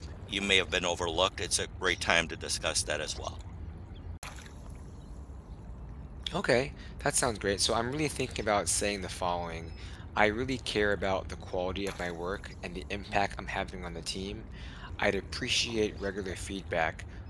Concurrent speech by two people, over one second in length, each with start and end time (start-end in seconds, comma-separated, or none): none